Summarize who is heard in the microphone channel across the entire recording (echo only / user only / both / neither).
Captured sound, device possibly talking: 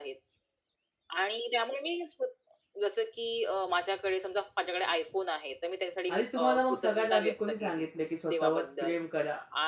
both